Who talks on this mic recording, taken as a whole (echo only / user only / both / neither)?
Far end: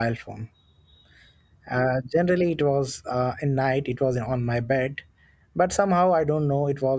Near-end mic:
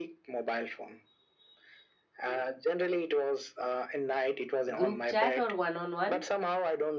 both